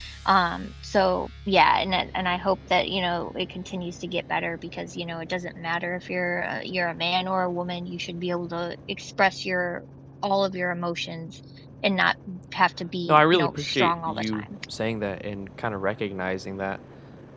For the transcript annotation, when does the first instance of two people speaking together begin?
13.1 s

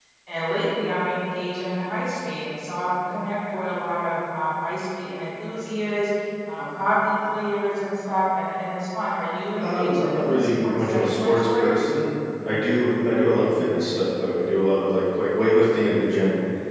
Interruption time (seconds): 9.6 s

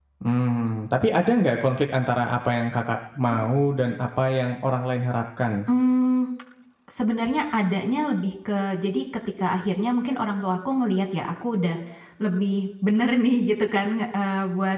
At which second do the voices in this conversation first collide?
none

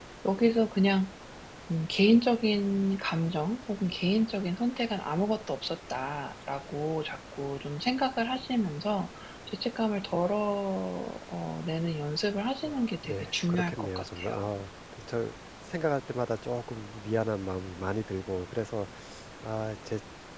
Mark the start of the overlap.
12.6 s

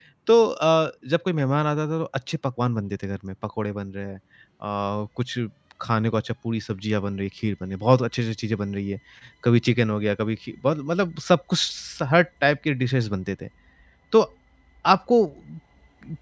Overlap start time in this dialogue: none

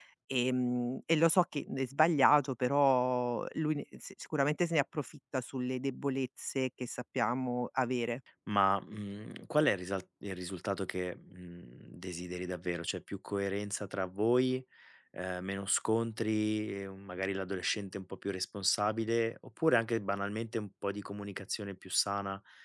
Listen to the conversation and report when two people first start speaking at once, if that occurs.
none

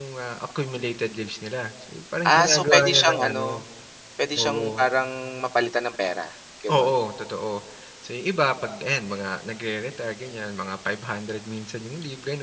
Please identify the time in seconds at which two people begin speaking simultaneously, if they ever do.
2.3 s

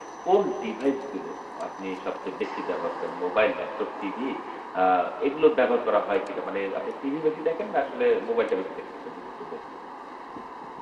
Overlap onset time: none

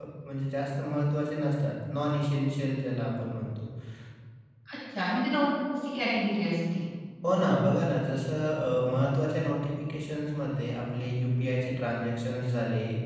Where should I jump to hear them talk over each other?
none

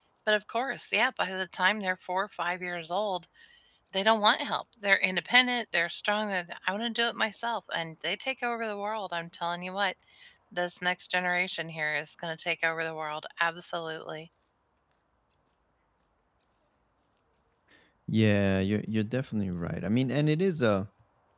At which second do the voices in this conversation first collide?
none

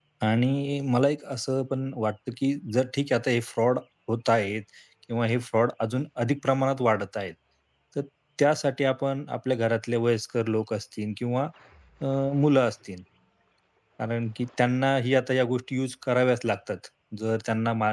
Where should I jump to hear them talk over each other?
none

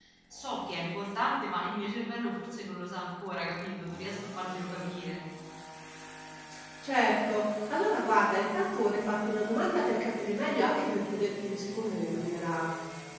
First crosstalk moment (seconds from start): none

